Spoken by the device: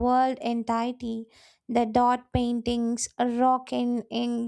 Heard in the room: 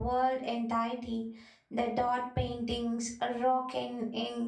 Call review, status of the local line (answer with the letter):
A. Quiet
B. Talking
A